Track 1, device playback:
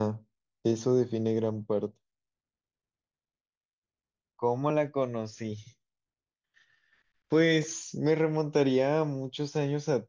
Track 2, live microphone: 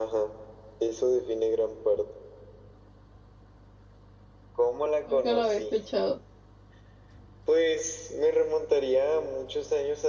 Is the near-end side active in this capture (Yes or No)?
Yes